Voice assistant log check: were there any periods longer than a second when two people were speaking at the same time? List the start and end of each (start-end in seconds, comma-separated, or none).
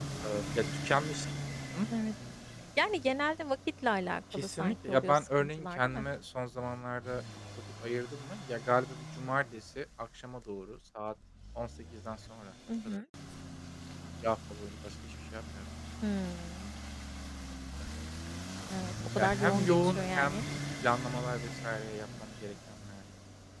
4.3-6.0, 19.1-20.4